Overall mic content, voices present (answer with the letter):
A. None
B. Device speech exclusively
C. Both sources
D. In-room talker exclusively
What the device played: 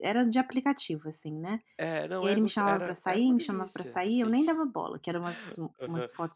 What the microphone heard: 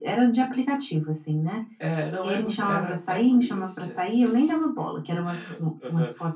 B